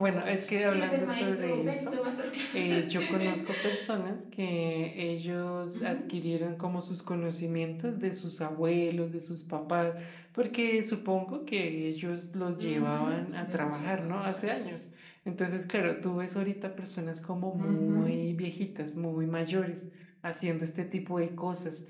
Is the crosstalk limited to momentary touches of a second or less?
No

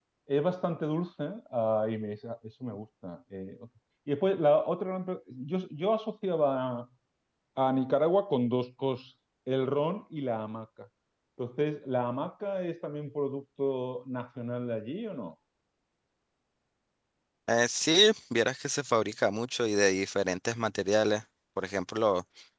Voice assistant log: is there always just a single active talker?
Yes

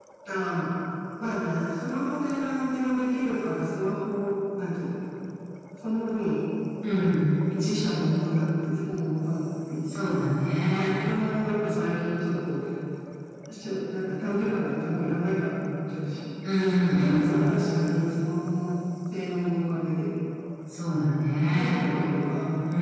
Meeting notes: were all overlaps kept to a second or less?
Yes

